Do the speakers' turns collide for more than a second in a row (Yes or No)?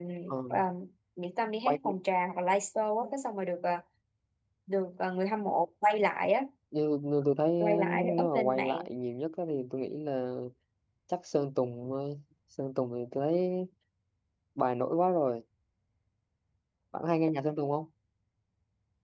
Yes